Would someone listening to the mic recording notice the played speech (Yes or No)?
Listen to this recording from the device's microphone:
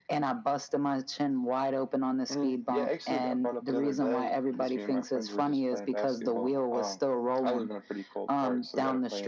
Yes